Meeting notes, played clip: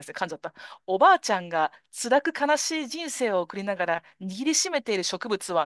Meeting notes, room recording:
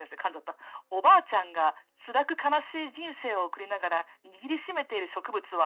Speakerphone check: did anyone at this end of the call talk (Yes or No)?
No